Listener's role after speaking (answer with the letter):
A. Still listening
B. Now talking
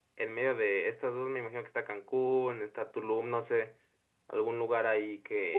B